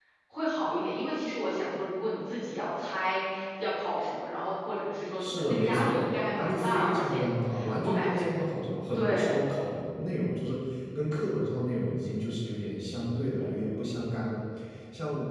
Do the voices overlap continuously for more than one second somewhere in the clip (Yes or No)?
Yes